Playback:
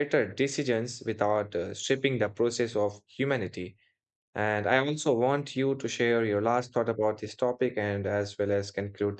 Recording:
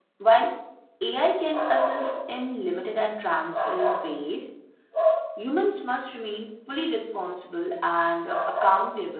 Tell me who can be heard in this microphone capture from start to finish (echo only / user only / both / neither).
user only